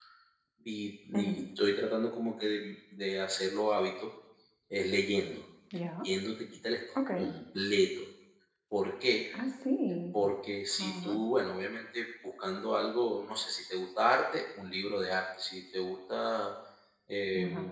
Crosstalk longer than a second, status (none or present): none